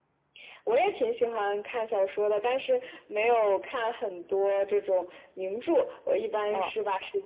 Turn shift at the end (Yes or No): No